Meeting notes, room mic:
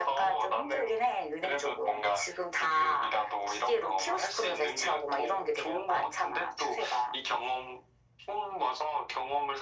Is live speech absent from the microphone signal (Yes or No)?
Yes